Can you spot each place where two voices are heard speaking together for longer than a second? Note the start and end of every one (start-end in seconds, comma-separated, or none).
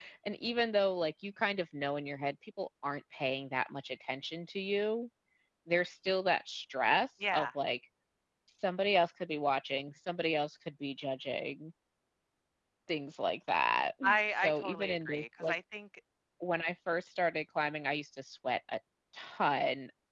14.0-15.6